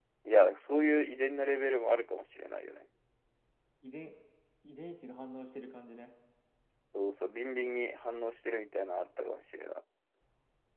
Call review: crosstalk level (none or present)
none